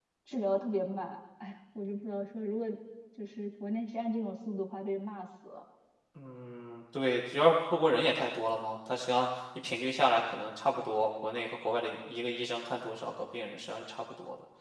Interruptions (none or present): none